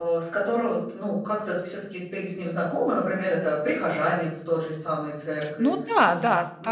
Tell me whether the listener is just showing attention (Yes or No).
No